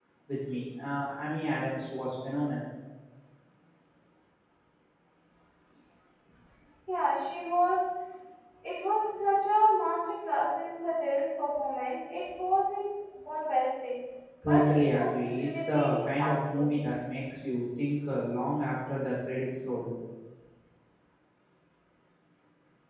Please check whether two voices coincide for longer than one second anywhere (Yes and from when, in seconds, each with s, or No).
Yes, from 14.4 s